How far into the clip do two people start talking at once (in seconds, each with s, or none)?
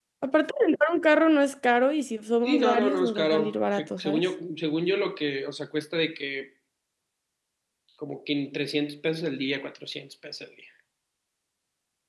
2.4 s